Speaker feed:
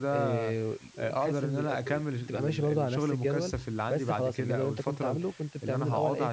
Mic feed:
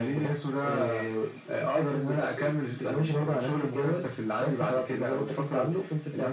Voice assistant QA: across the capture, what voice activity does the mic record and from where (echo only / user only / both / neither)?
echo only